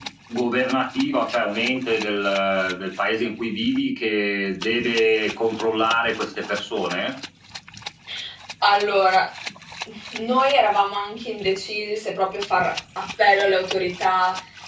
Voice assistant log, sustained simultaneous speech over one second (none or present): none